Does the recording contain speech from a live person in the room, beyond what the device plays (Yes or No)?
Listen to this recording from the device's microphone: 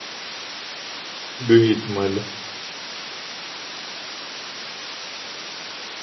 Yes